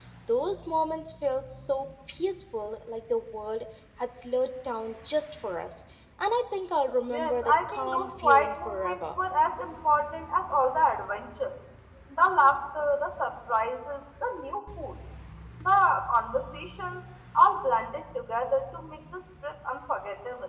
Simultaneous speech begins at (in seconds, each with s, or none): 7.1 s